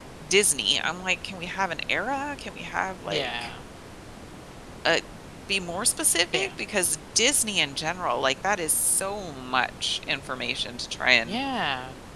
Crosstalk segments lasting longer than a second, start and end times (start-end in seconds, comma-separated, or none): none